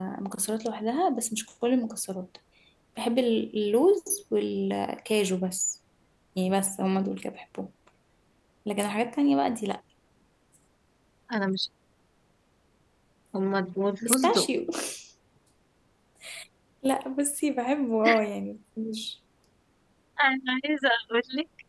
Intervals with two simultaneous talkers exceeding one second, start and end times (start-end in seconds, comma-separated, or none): none